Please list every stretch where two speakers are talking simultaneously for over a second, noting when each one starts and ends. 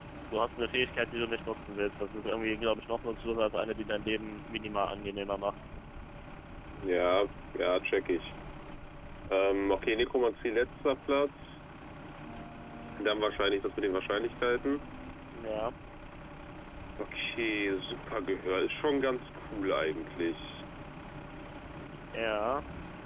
none

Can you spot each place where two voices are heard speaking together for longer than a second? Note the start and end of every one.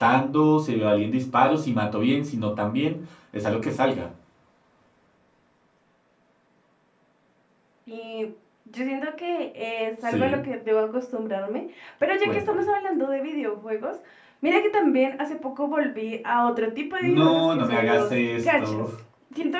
17.0-18.8

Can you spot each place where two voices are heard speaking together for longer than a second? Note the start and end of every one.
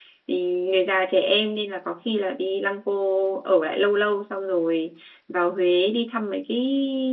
none

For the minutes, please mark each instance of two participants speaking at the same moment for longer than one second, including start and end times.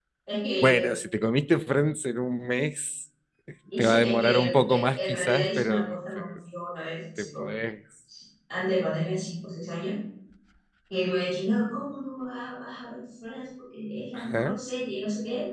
3.8-6.2

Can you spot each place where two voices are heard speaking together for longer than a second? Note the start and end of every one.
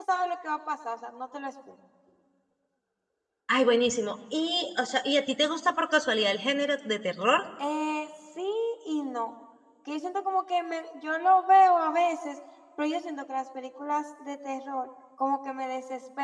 none

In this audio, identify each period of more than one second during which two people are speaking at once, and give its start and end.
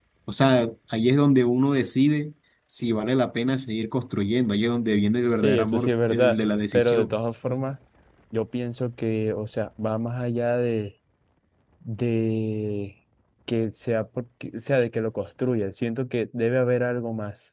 5.4-7.1

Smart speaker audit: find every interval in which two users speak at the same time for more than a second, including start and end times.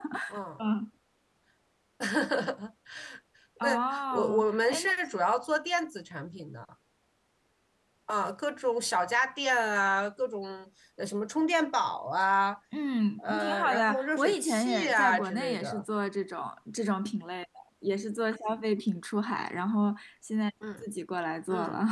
3.6-4.9, 13.2-15.8

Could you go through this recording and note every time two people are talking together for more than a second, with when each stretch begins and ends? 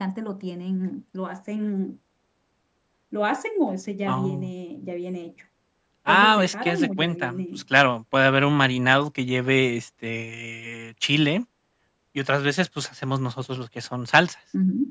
6.1-7.4

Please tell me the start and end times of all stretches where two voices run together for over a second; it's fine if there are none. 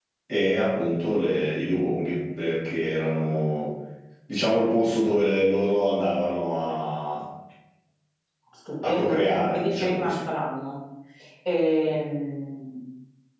8.8-10.3

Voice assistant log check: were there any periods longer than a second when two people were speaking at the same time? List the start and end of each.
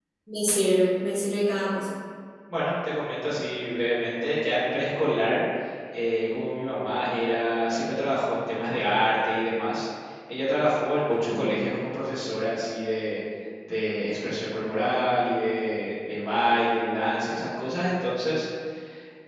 none

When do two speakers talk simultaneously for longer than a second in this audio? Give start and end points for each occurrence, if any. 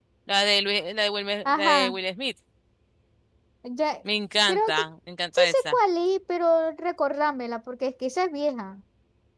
none

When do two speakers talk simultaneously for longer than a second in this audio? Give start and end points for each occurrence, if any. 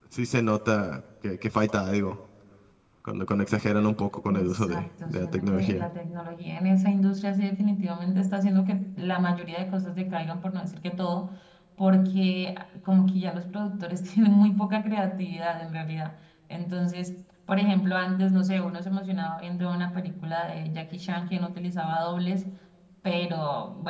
4.3-5.9

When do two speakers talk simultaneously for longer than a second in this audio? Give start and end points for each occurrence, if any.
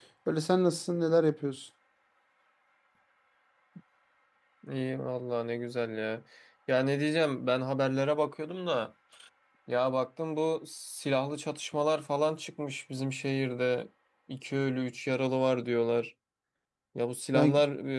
none

